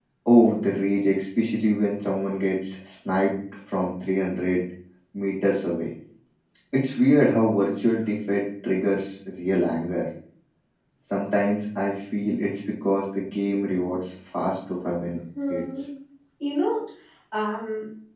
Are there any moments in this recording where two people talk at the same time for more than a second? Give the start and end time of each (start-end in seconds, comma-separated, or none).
none